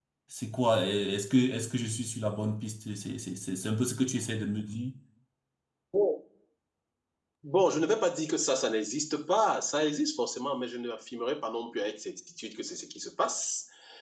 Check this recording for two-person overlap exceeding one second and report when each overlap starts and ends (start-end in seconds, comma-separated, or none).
none